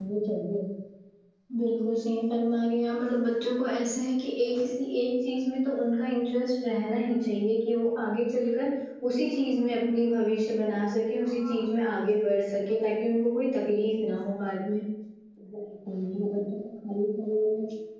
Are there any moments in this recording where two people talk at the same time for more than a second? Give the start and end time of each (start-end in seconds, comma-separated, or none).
none